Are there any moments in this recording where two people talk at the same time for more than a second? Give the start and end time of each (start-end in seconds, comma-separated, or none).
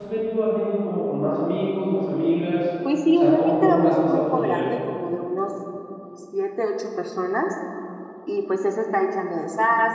3.2-4.7